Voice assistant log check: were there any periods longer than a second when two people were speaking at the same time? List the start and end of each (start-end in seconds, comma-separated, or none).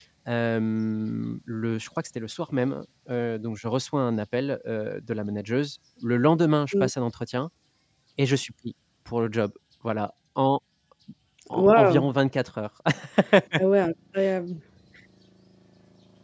none